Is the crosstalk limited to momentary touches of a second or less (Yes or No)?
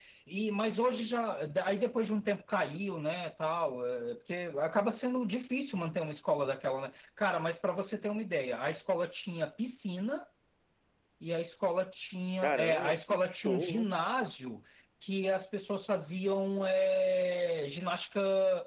No